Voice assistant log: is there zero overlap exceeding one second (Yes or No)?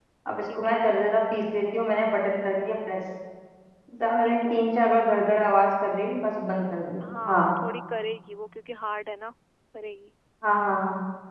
Yes